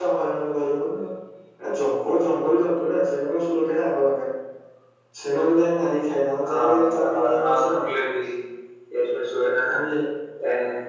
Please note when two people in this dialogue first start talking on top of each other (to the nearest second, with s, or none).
6 s